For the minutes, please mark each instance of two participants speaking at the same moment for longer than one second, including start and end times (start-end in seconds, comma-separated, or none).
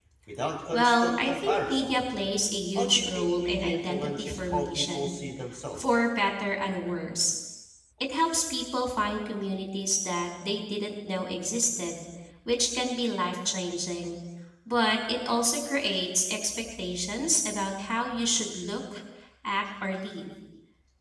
0.7-2.0, 2.8-5.1